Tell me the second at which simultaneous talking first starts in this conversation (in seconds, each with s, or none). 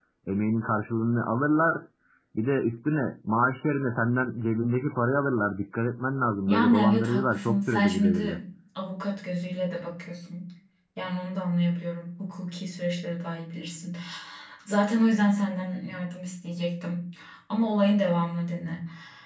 6.5 s